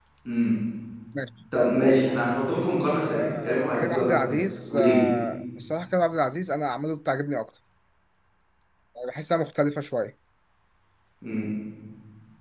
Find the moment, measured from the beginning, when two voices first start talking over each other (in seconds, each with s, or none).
3.1 s